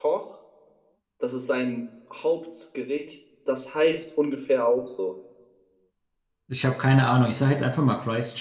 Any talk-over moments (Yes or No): No